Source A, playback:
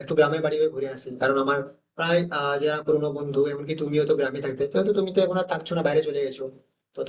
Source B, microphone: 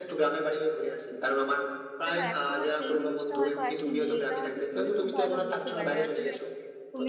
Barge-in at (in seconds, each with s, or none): 2.0 s